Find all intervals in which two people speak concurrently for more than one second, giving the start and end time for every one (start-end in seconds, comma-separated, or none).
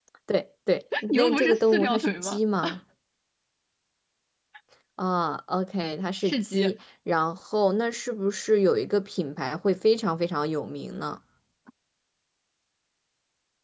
1.1-2.4